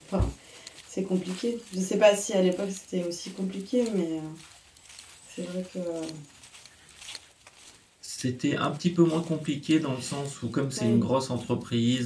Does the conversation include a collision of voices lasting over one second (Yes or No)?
No